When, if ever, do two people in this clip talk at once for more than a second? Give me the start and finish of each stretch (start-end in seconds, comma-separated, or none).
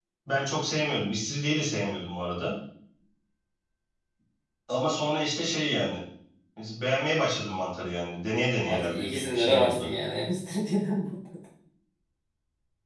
8.7-9.9